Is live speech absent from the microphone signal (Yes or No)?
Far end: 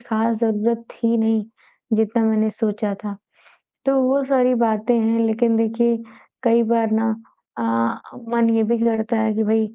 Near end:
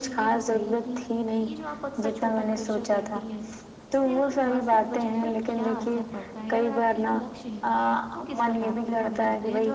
No